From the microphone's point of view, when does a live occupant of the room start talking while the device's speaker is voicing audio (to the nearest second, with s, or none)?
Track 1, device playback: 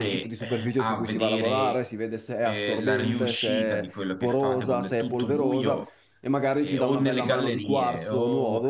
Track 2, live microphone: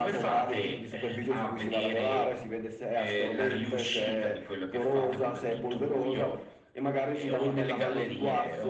none